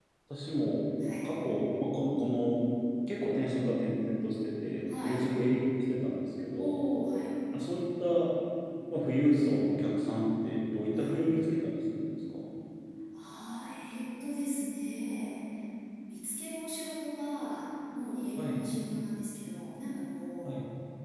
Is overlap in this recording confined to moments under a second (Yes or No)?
Yes